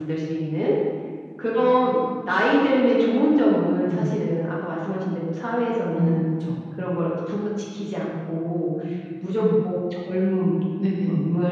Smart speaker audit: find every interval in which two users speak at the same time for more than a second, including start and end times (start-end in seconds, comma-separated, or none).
none